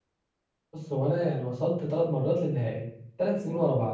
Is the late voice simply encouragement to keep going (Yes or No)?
Yes